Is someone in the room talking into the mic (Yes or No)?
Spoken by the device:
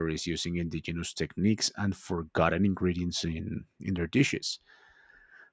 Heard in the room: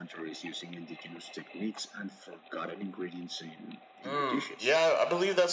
Yes